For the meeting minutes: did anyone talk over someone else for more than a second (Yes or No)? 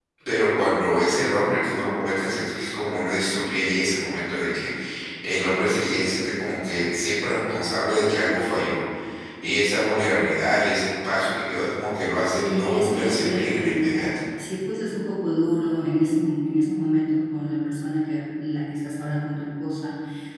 Yes